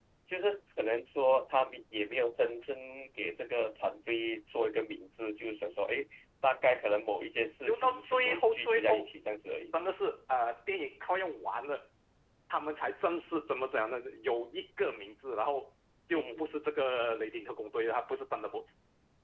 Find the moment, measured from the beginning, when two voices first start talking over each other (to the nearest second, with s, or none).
8 s